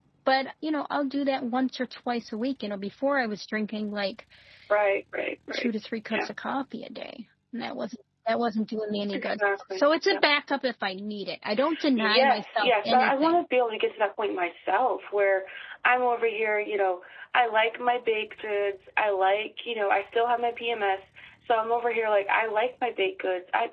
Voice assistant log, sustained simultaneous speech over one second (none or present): present